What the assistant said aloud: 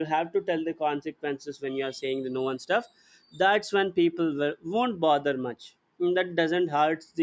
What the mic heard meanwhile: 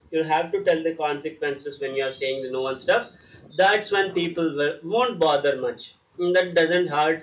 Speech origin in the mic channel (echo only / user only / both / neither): echo only